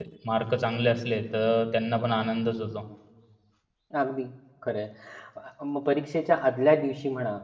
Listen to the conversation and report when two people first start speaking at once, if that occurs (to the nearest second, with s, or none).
none